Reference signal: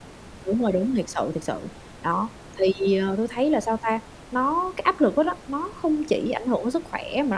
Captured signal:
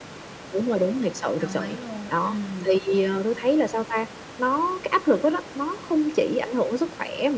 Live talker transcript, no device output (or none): Đồng ý luôn, ừm.